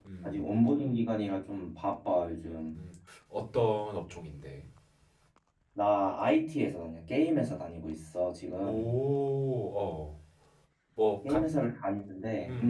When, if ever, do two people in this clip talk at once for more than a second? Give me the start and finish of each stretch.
none

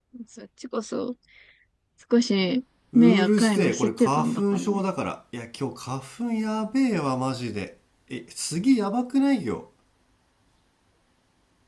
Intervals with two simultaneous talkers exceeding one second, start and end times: 2.9-4.8

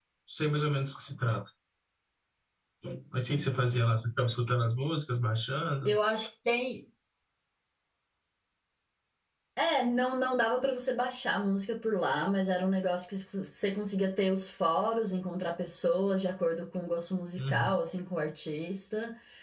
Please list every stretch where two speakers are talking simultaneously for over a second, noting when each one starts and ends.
none

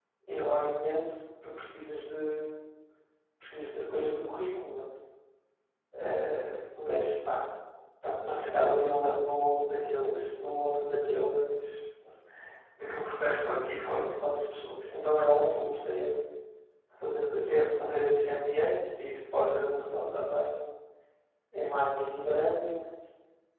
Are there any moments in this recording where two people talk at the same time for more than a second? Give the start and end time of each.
none

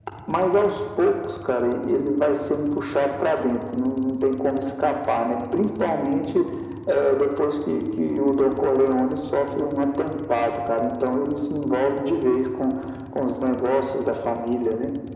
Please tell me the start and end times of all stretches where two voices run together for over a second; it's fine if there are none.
none

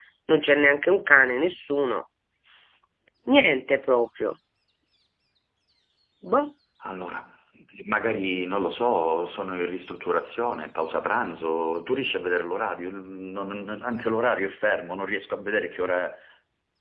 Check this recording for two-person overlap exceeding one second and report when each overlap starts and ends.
none

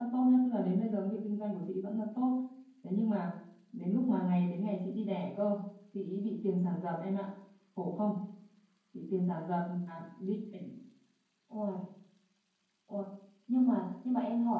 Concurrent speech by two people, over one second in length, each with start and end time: none

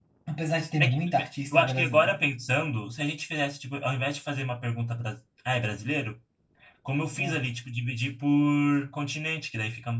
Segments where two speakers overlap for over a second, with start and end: 0.8-2.2

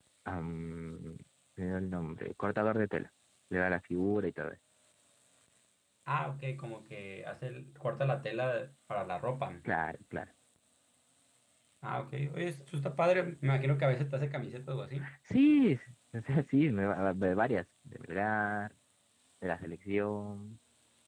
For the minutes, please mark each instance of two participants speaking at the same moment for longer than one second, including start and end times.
none

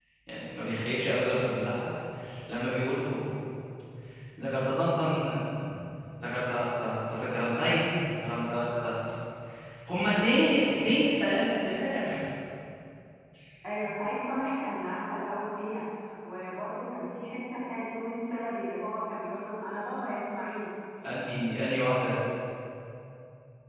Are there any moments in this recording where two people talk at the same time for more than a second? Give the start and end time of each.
none

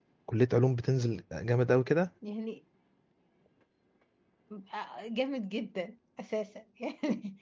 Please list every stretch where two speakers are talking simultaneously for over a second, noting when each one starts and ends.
none

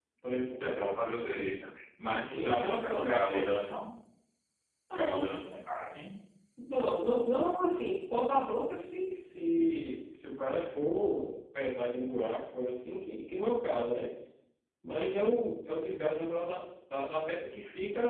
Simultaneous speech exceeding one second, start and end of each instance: 2.0-3.6

